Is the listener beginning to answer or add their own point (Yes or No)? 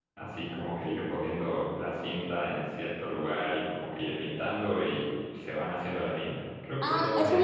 Yes